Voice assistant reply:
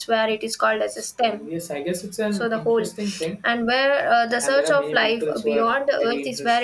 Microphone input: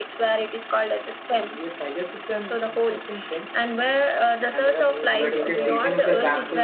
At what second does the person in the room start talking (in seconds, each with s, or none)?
5.2 s